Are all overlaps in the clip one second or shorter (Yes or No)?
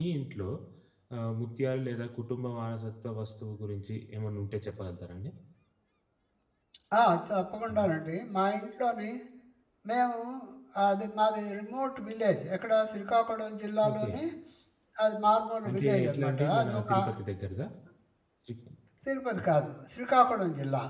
No